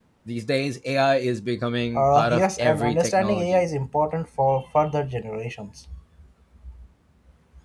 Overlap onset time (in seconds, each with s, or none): 2.0 s